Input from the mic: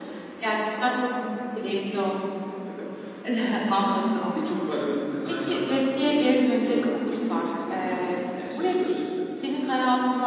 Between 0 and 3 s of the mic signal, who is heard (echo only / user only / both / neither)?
echo only